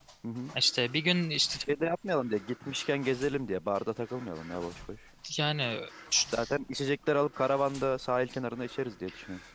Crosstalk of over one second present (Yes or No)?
No